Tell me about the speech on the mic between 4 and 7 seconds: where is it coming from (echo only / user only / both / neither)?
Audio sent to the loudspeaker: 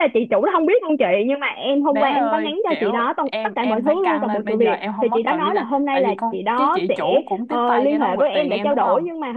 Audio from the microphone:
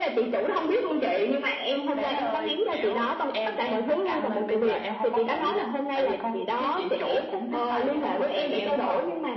echo only